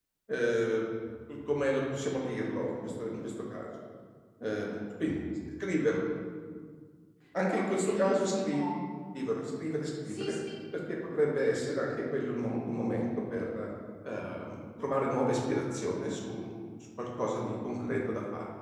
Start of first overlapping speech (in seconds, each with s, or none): 7.5 s